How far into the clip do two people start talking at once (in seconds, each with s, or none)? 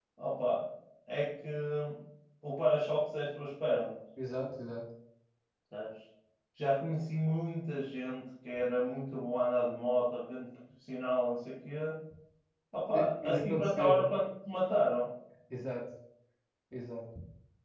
12.9 s